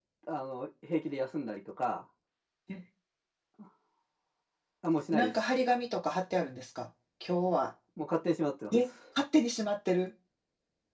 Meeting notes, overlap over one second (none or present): none